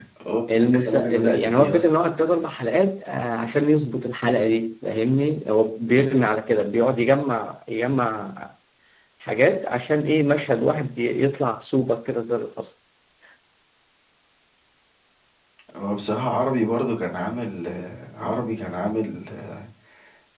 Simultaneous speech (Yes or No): Yes